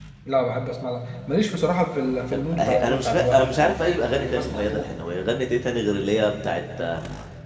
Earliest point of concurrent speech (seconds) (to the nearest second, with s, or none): 2 s